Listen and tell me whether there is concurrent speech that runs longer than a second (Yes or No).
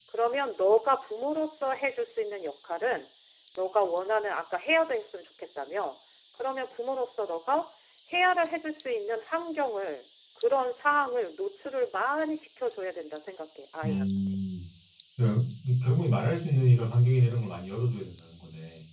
No